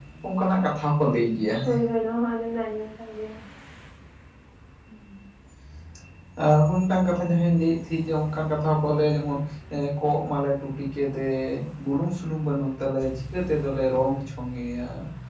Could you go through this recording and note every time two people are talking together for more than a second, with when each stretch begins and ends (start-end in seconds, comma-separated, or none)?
none